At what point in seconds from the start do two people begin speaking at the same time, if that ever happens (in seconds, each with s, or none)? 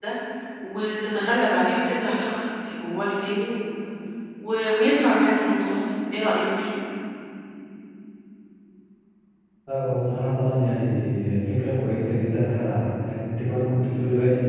none